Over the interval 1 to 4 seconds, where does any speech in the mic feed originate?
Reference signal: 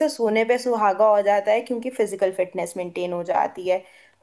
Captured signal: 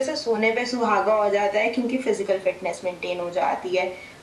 echo only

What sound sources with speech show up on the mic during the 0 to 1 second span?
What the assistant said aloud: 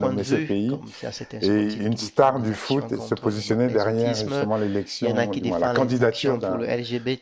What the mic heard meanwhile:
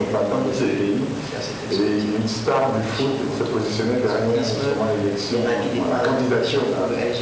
echo only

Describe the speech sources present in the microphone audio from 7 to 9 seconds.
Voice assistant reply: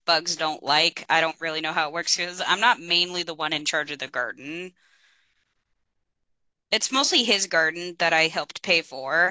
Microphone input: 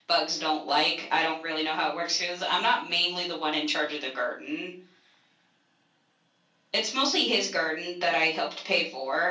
echo only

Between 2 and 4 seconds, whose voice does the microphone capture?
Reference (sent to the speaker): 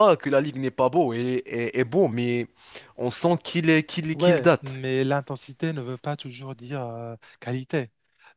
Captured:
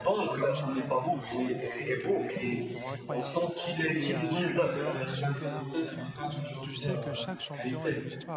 both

